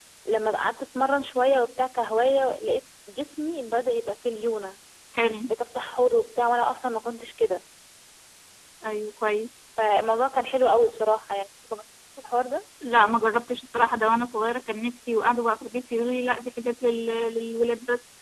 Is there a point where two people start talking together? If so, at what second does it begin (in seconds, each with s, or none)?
none